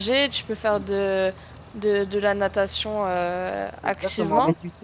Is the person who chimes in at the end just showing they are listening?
No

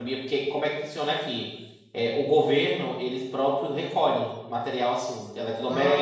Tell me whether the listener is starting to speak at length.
No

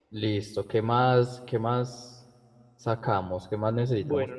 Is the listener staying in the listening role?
No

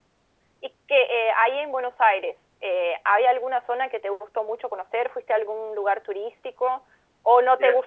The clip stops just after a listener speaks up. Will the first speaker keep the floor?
Yes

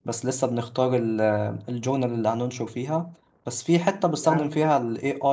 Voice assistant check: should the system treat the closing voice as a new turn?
No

